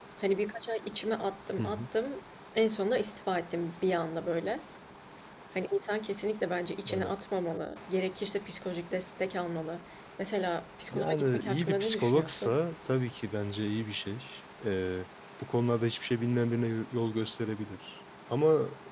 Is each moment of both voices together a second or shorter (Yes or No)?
No